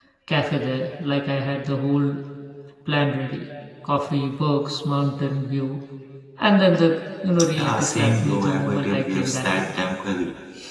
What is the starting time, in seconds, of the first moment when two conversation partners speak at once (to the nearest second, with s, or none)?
7 s